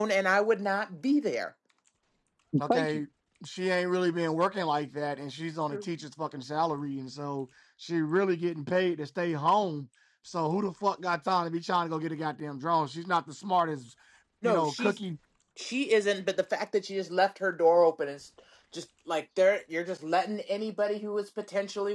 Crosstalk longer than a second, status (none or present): none